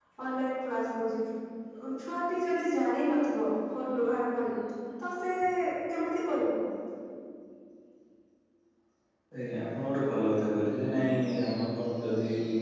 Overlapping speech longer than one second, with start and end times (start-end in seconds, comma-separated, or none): none